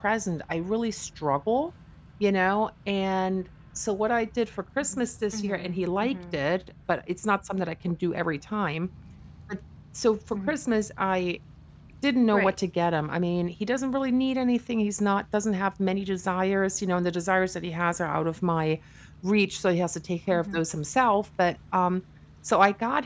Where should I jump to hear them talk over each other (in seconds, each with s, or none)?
4.8 s